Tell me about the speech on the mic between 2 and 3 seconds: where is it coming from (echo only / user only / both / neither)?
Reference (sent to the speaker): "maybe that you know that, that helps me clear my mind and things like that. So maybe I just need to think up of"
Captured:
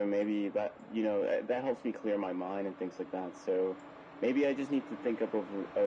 echo only